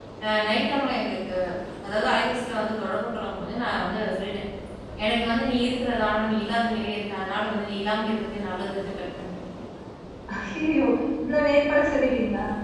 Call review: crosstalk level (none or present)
none